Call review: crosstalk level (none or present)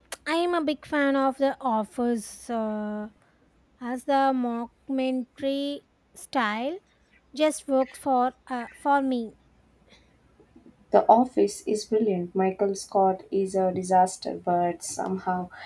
none